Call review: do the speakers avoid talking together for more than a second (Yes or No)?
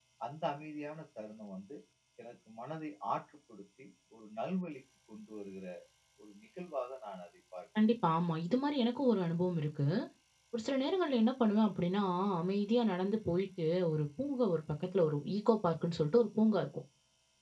Yes